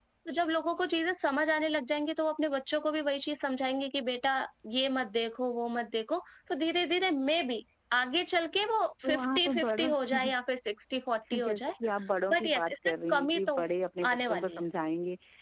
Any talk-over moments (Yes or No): Yes